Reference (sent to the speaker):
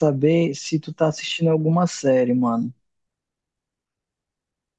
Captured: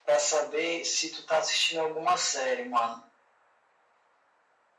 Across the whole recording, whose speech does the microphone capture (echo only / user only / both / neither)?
echo only